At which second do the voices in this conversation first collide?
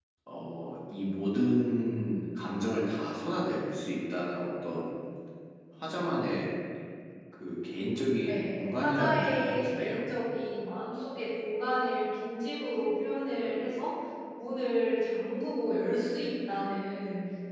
8 s

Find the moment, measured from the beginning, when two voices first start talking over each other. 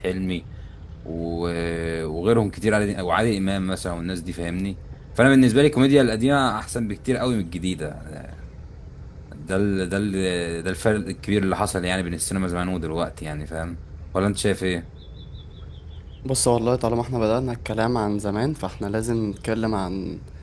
none

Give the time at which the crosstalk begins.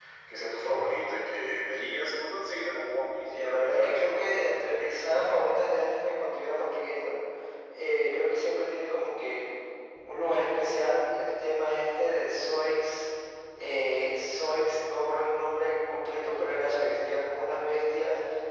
3 s

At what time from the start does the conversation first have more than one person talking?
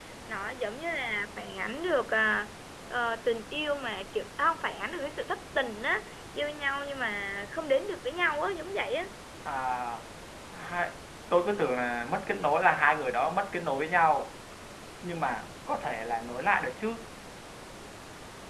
none

